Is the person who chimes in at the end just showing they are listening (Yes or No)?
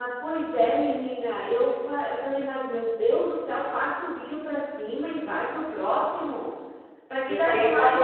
No